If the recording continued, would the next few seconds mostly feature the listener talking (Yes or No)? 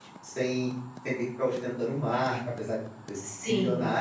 No